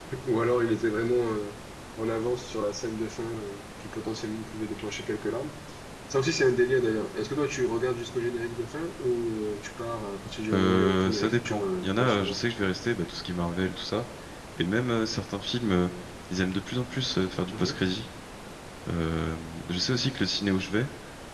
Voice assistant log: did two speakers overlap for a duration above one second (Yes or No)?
Yes